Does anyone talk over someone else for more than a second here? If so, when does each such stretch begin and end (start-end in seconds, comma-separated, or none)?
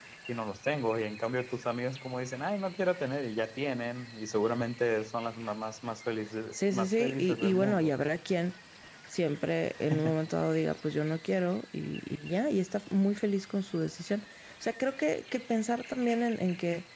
6.5-7.9